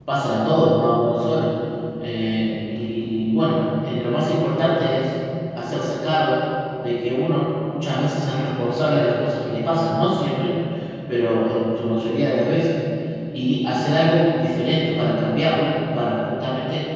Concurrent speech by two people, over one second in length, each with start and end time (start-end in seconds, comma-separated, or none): none